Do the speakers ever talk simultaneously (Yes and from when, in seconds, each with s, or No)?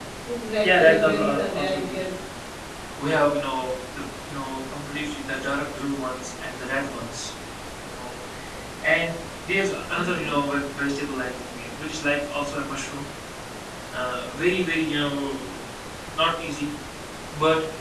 Yes, from 0.6 s